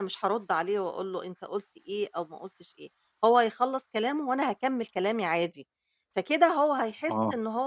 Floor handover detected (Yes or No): No